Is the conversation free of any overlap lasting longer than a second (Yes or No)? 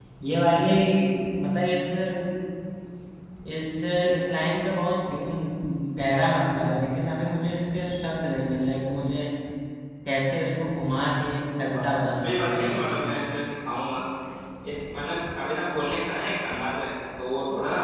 No